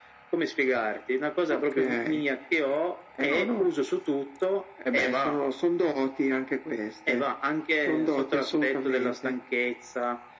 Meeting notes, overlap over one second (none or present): present